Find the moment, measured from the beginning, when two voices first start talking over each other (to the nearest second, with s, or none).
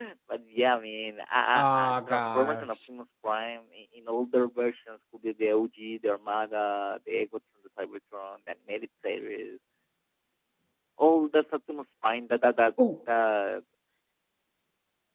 2 s